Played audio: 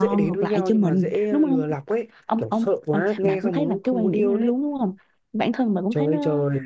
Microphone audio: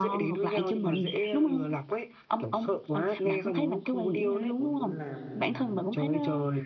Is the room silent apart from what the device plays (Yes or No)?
No